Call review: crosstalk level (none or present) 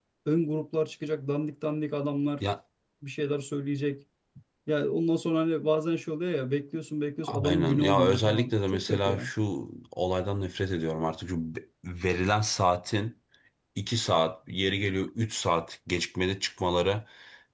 present